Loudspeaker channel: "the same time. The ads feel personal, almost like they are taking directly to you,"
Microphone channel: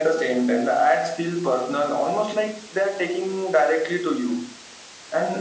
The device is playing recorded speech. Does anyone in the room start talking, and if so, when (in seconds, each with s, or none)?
none